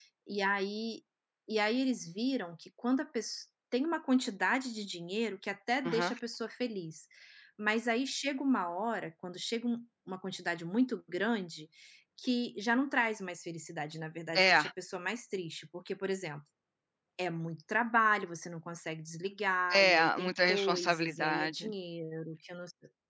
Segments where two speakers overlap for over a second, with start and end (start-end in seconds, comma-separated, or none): 19.7-21.7